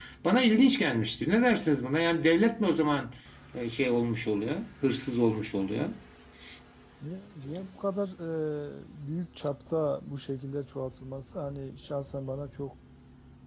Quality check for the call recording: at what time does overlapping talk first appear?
none

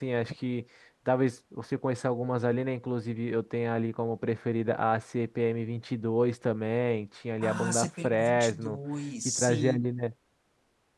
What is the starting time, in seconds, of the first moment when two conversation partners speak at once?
7.4 s

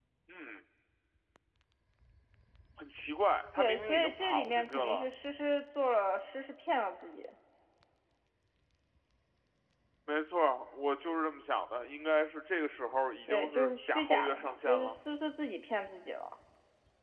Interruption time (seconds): 3.6 s

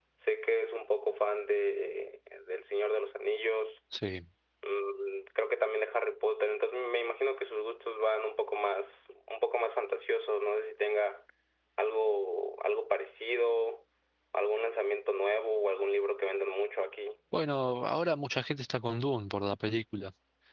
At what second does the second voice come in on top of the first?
none

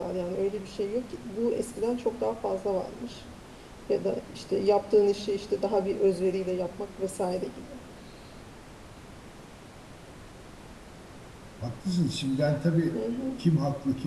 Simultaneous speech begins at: none

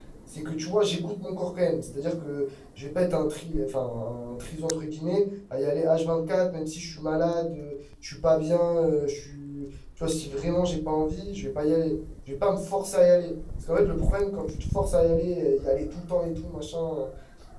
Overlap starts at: none

